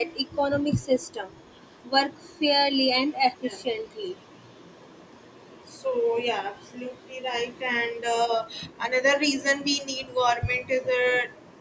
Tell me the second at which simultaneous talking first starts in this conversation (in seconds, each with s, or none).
none